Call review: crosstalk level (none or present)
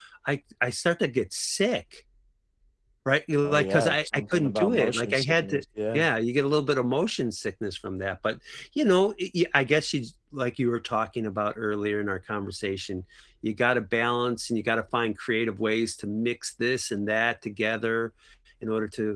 present